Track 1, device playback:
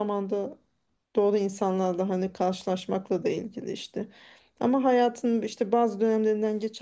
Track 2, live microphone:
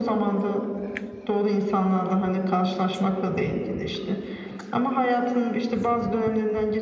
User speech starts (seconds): none

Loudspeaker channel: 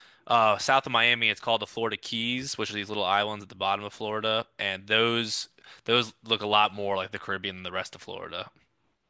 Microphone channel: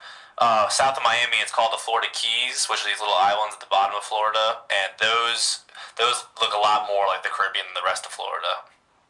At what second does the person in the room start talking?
none

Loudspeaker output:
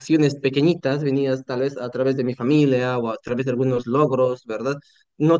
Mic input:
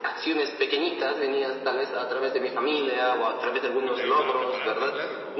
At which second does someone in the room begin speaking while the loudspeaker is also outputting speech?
3.8 s

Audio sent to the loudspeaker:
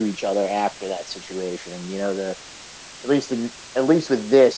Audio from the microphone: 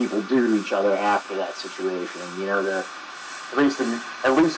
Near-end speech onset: none

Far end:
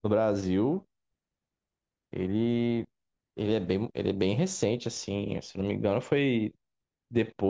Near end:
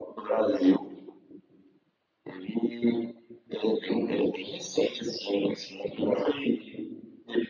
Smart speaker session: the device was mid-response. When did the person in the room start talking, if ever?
none

